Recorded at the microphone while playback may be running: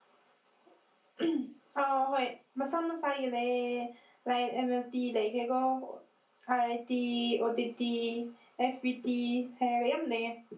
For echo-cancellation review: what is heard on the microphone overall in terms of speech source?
user only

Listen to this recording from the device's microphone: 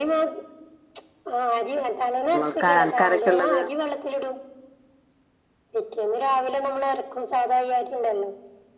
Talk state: both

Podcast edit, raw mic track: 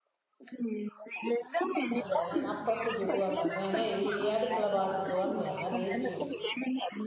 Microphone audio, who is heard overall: both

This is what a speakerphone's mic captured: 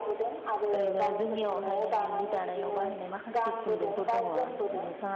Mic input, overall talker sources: both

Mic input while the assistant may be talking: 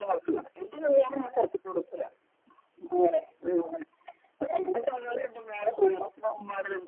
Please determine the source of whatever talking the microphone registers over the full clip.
echo only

